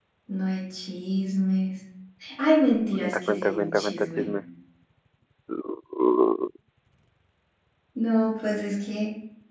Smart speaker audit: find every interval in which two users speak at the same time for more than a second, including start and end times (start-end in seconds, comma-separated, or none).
3.0-4.3